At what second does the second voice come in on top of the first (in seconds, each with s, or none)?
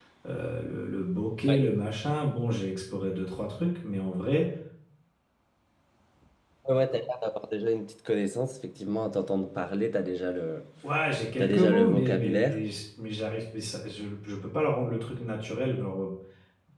11.4 s